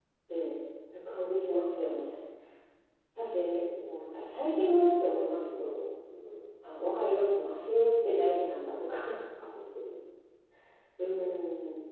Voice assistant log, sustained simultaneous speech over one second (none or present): none